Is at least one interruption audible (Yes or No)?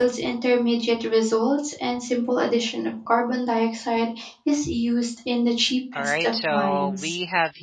Yes